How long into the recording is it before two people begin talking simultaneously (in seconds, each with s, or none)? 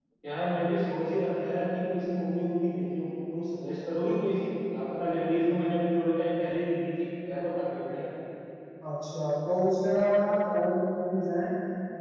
none